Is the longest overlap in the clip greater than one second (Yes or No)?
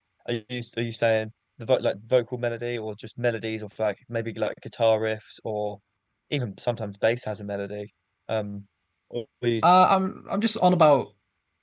No